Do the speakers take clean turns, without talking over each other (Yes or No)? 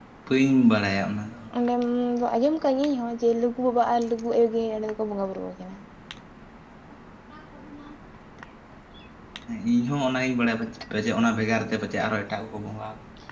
Yes